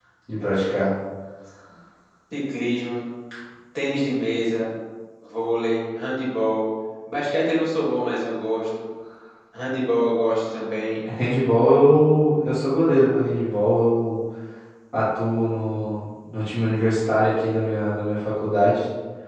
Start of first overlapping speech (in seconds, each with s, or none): none